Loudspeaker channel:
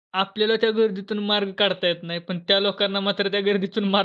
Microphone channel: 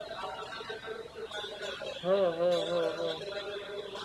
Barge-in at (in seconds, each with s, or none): 2.0 s